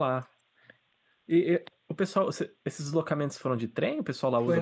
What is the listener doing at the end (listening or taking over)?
taking over